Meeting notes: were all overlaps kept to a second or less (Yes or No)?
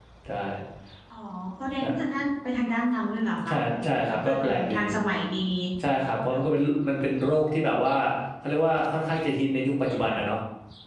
No